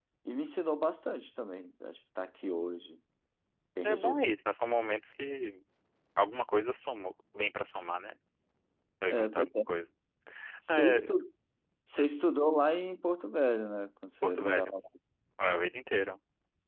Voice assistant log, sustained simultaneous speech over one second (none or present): none